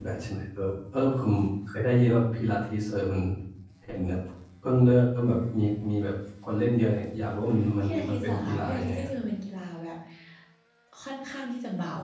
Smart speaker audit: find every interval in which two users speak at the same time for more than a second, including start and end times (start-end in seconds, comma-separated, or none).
7.8-9.1